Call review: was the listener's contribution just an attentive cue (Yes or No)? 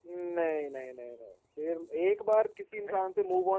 Yes